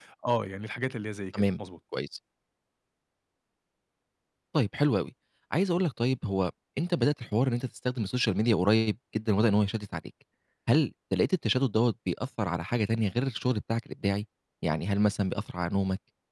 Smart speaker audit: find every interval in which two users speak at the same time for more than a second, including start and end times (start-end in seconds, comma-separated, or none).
none